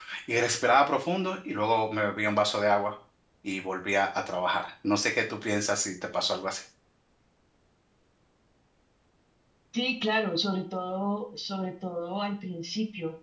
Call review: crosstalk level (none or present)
none